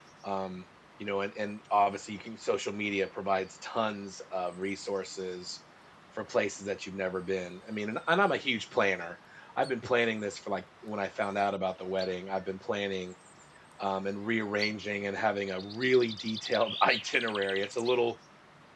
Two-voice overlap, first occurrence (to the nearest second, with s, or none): none